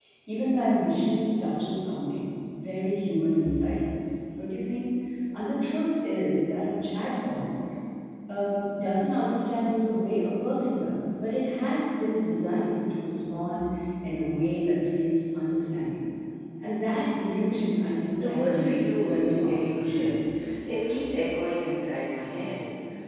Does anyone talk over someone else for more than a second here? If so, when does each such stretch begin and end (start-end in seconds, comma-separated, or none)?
18.2-19.8